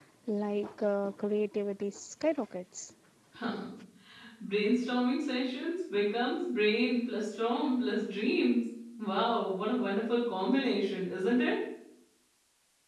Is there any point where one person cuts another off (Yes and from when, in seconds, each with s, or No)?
No